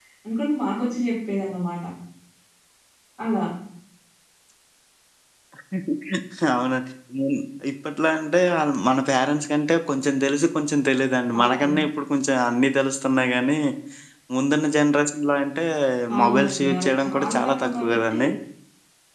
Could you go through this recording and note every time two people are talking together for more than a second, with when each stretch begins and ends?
16.2-18.2

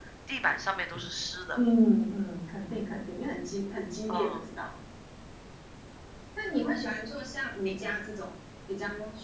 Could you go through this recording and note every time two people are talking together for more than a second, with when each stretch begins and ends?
none

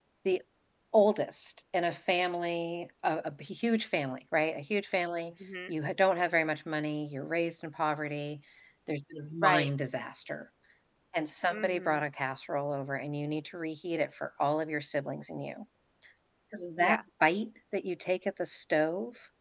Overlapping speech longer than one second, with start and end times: none

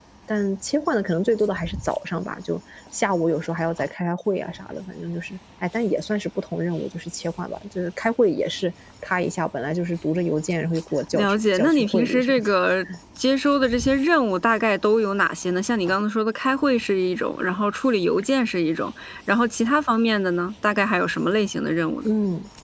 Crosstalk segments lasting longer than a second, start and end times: 11.1-12.5

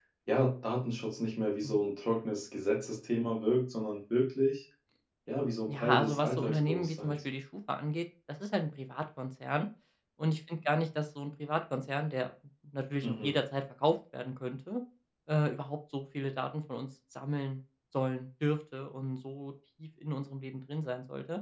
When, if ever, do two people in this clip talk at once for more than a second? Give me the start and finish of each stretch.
5.7-7.2

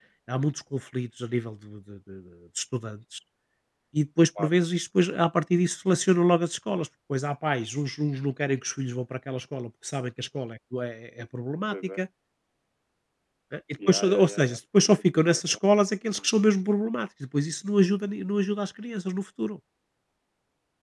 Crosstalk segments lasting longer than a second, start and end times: 13.9-15.6

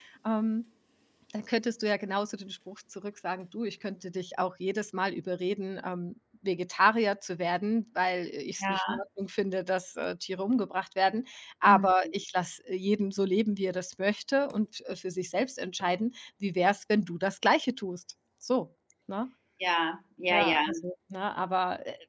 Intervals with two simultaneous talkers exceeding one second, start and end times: none

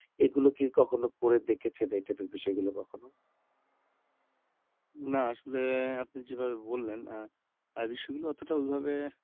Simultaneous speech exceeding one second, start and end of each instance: none

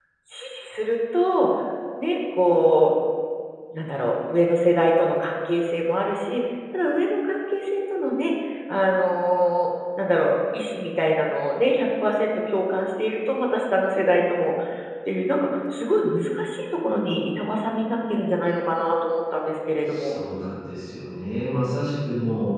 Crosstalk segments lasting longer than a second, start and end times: none

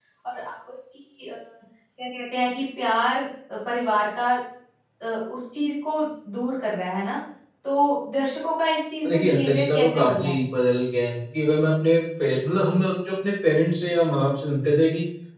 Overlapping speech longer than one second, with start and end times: 9.0-10.4

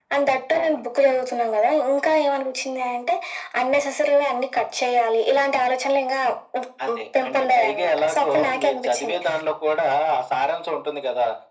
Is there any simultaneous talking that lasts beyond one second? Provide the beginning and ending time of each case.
6.9-9.2

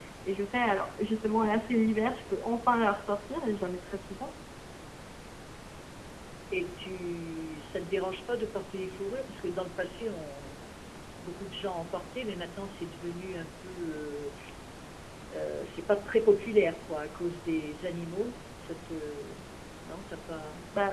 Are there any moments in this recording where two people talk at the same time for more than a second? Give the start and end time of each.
none

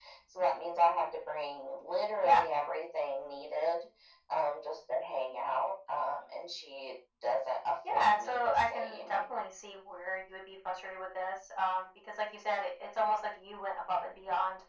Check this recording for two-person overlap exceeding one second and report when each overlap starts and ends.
7.9-9.3

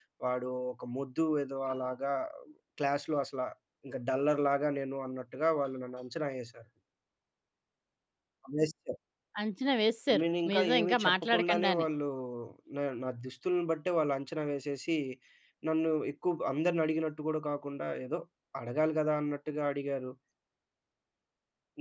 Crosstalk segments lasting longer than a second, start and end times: 10.2-11.9

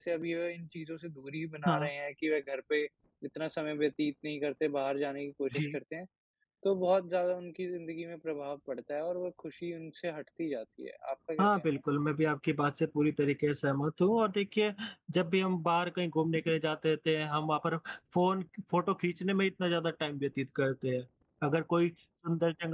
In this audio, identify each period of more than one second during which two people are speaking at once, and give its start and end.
none

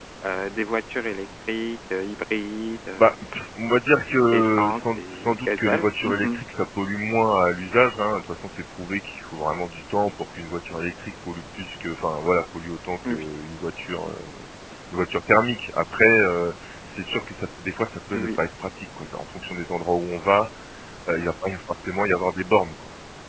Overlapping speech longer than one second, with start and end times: 4.3-6.4

